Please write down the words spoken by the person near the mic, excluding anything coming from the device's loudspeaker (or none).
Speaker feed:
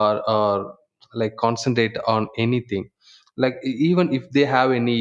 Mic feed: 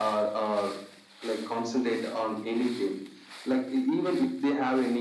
none